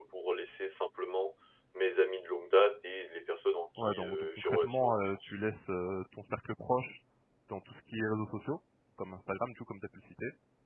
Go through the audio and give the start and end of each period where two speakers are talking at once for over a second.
3.8-5.3

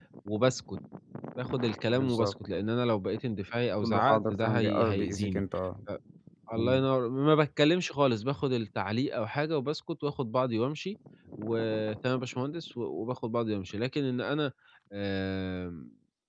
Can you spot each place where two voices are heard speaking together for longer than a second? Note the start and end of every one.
3.8-5.4

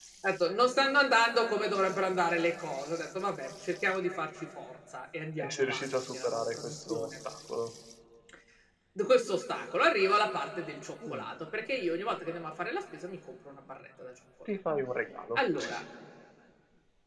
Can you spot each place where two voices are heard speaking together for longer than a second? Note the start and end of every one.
5.4-7.2

